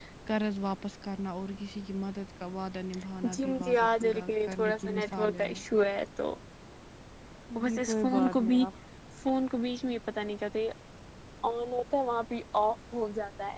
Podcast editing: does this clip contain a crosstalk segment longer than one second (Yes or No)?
Yes